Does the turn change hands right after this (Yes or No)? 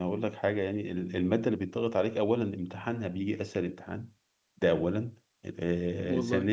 No